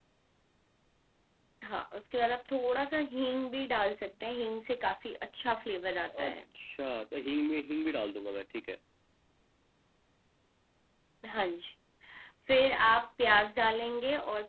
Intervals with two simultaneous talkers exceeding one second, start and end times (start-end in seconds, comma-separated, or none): none